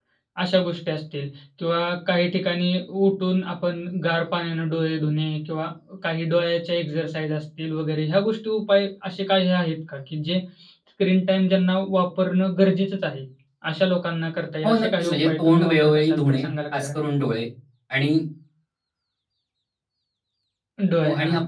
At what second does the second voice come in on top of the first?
14.7 s

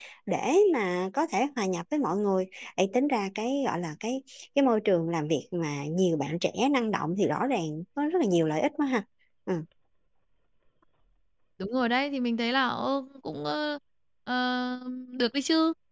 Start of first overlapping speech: none

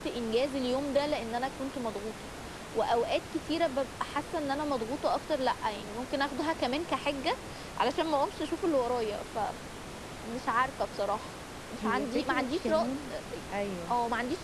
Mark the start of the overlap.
11.8 s

